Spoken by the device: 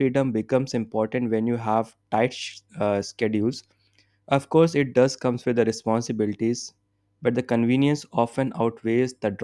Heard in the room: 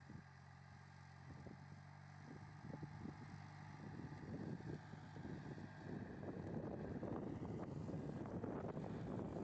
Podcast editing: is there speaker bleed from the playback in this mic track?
No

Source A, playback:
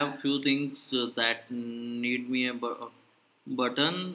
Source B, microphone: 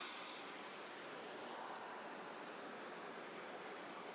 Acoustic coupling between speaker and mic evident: No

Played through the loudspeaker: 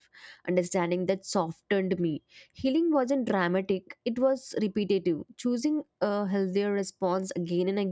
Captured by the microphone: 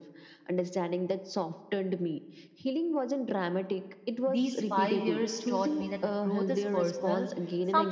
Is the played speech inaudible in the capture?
No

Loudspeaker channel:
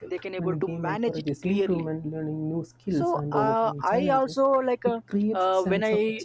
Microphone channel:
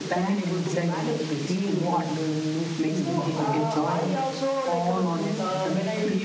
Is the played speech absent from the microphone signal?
No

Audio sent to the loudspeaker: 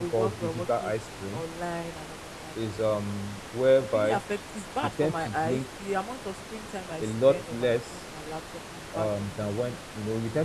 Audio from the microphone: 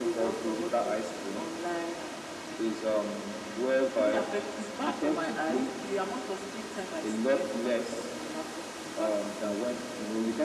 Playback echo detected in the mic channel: Yes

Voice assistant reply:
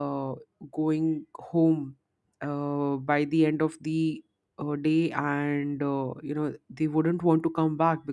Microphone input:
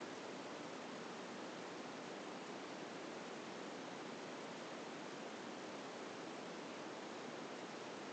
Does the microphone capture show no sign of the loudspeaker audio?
Yes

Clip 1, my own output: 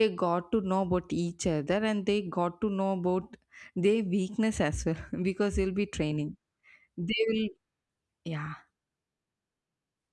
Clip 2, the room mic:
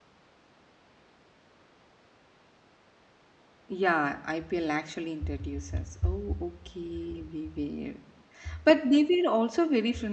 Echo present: No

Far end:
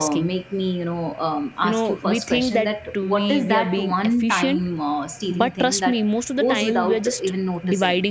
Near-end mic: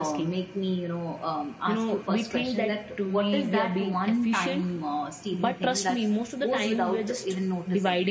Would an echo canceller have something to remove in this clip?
Yes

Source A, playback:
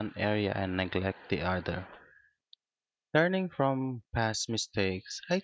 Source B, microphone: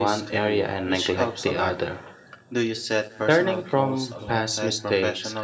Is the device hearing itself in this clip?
Yes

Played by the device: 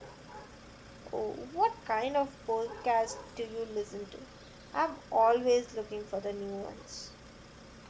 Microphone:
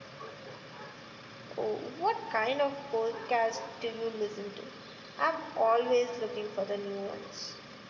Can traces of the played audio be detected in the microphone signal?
Yes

